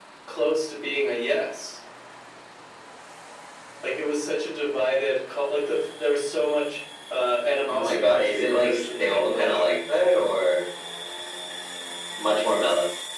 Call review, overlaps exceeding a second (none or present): present